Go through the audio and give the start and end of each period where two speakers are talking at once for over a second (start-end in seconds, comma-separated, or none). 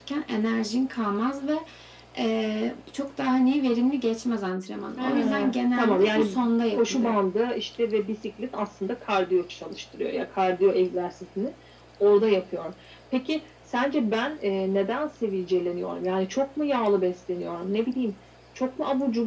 5.0-7.1